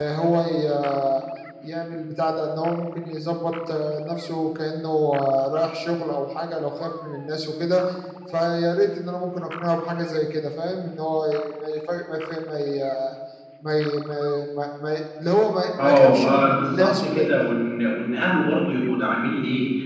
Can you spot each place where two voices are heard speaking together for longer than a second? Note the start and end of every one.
15.8-17.3

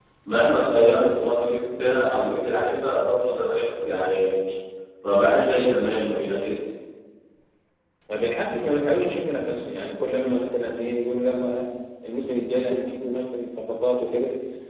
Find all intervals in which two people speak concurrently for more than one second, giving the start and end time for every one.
none

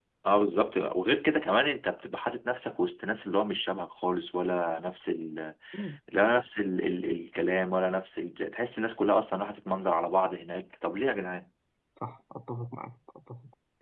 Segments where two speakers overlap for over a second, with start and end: none

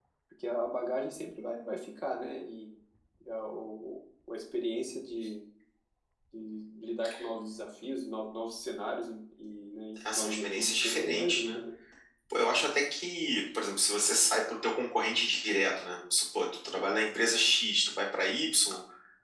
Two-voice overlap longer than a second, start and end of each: 10.1-11.6

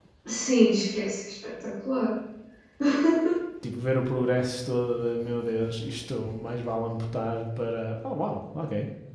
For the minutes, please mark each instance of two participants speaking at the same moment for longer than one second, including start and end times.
none

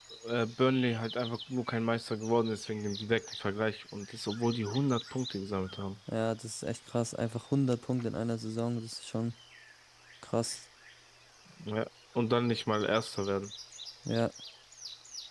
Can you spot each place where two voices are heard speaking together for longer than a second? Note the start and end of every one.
none

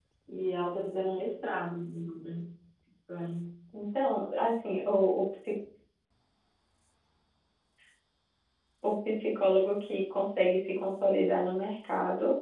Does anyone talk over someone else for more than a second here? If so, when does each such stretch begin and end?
none

